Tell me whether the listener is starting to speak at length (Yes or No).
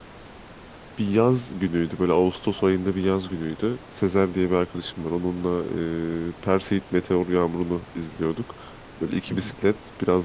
No